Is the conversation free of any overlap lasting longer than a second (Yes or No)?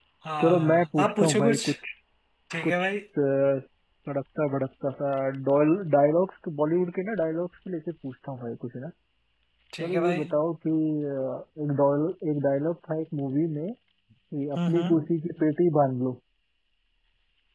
No